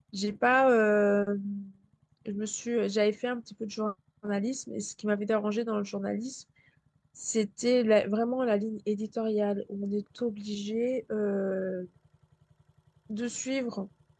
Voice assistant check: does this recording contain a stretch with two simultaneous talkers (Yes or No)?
No